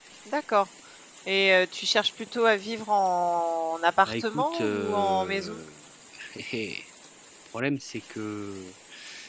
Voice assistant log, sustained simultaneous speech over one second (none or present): present